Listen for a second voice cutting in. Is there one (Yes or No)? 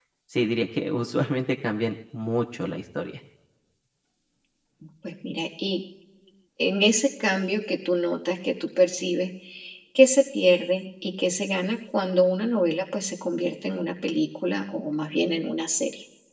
No